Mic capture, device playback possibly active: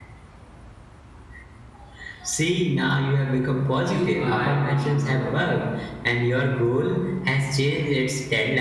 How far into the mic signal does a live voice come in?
3.8 s

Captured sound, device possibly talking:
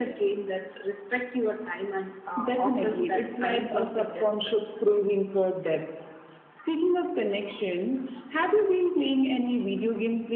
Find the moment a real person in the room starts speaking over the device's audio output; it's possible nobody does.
none

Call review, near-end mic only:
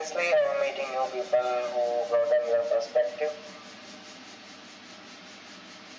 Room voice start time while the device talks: none

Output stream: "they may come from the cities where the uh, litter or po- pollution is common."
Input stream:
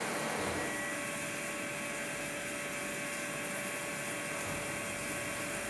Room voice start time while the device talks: none

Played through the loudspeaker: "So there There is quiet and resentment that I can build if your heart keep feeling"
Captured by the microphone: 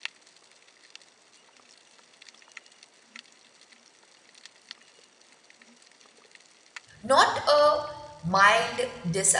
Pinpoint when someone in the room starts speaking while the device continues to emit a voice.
7.0 s

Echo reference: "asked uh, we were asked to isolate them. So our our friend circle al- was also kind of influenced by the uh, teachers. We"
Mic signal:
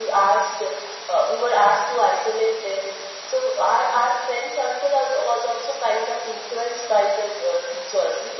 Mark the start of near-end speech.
none

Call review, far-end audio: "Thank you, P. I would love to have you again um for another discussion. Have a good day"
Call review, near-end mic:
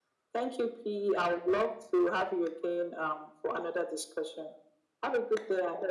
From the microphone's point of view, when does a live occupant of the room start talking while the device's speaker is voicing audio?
none

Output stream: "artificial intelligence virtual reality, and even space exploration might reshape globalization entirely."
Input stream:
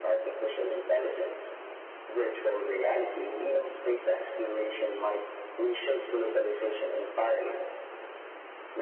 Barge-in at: none

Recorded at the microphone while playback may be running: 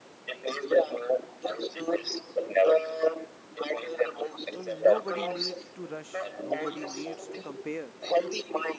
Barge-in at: 4.5 s

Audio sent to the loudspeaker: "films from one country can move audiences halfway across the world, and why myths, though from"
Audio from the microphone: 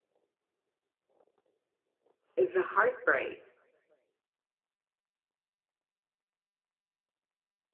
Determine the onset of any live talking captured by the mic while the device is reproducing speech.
2.3 s

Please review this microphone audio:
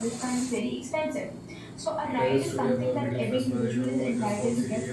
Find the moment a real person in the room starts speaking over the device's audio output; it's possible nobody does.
2.2 s

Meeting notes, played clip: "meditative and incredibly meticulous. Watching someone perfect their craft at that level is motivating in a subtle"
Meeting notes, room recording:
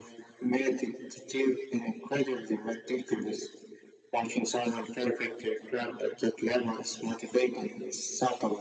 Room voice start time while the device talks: none

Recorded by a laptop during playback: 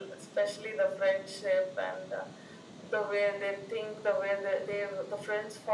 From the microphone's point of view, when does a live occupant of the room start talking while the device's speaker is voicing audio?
none

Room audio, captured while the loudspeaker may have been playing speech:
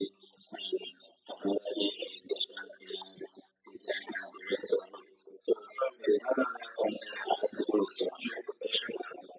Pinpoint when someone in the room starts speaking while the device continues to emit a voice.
none

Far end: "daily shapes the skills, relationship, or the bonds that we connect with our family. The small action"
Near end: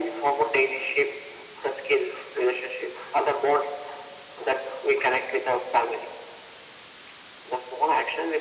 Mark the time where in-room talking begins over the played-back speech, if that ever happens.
none

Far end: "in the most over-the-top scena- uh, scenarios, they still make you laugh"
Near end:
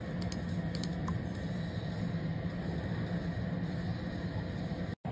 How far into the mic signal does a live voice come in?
none

